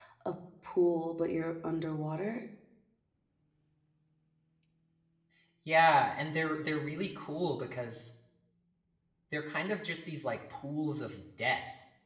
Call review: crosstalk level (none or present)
none